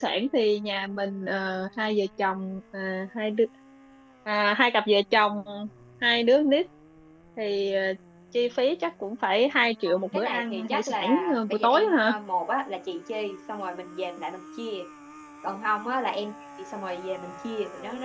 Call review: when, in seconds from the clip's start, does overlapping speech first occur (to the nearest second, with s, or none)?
10 s